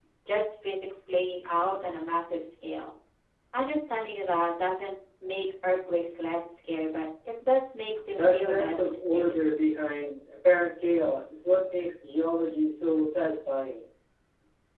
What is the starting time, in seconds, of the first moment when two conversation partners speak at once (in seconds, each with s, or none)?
8.1 s